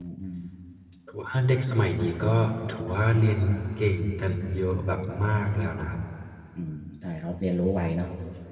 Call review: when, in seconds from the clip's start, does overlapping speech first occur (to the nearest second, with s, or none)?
none